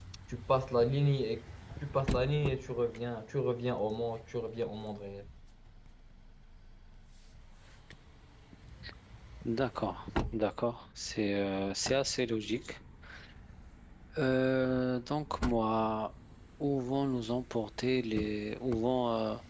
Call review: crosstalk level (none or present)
none